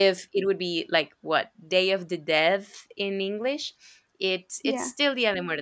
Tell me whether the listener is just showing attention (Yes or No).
Yes